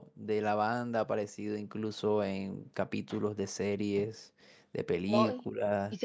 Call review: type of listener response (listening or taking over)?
taking over